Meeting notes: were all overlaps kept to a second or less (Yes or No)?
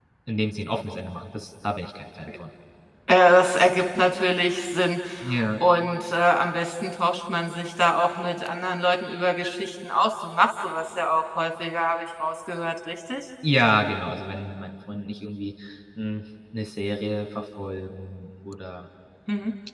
Yes